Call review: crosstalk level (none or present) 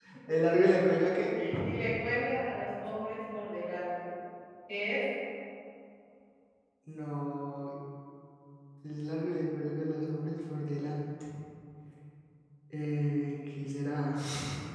none